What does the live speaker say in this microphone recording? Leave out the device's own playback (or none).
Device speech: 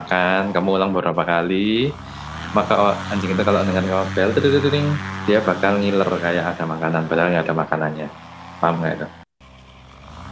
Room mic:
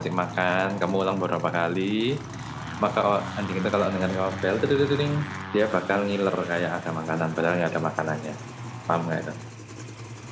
none